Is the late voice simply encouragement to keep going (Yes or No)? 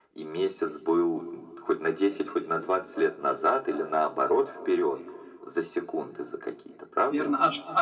No